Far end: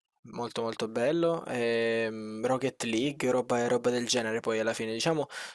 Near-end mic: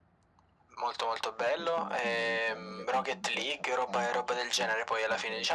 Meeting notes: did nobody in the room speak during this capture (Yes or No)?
No